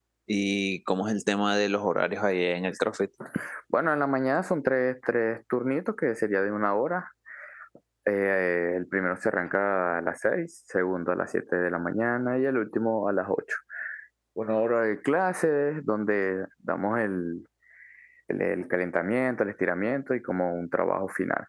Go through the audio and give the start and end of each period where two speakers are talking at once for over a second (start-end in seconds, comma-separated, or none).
none